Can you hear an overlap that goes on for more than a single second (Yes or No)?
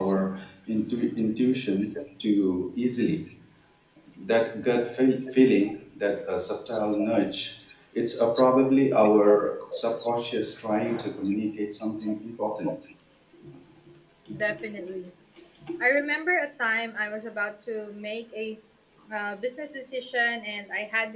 No